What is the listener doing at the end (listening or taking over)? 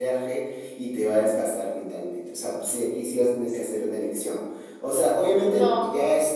listening